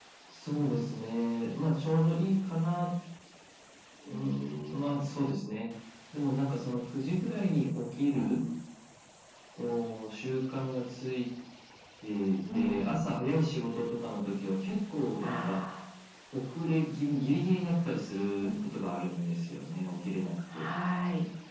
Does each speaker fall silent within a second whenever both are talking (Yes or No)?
Yes